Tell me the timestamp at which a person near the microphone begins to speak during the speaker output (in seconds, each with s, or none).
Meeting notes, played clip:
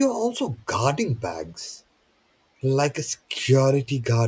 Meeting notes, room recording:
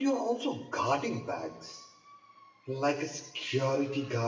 none